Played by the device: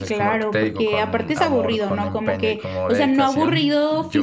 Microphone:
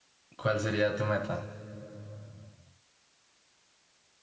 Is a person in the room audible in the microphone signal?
Yes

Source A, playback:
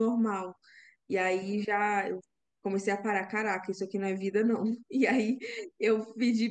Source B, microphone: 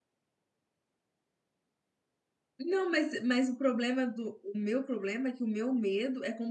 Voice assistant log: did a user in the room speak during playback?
Yes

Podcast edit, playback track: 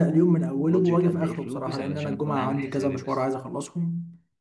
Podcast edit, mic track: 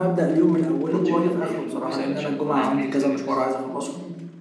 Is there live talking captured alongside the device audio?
No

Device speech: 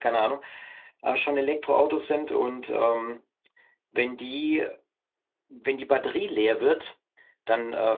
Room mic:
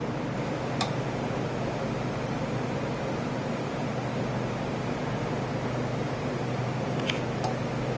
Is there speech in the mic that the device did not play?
No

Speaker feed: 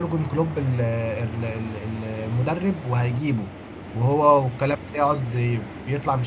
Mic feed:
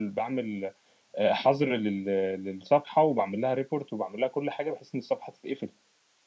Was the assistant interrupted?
Yes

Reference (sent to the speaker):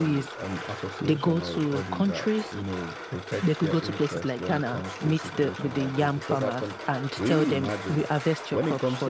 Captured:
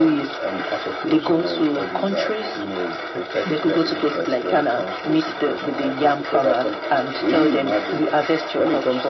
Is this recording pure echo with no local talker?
Yes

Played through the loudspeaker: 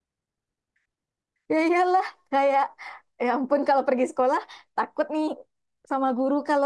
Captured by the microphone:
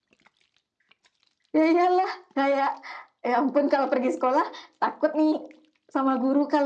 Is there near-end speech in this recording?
No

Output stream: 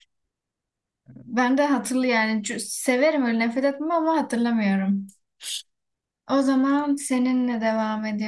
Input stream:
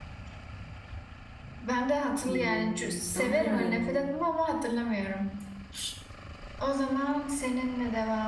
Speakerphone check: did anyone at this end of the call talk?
Yes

